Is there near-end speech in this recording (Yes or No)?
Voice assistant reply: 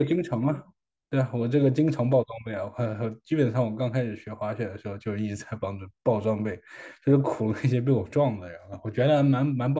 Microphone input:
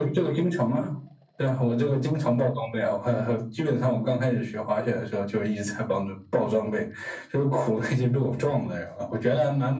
No